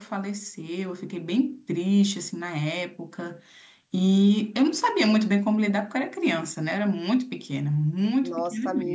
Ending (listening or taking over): taking over